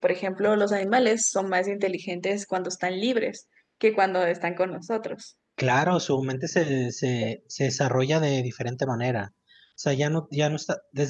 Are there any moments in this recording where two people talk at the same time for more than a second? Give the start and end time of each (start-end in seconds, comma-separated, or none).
none